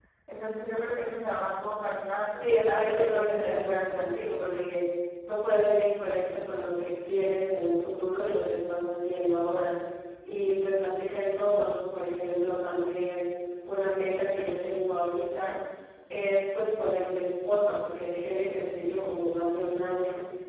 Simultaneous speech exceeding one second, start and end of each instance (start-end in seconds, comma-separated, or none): 2.4-4.1